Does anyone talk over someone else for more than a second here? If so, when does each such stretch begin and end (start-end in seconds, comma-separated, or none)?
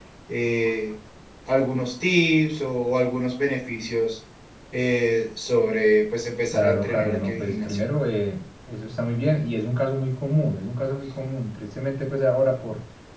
6.5-7.8